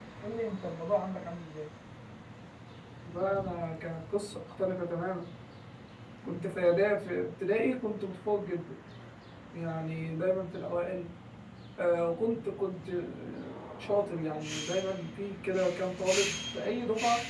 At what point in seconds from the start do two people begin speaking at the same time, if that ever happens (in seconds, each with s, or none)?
none